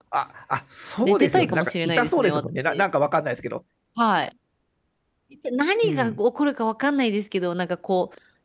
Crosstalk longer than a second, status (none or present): present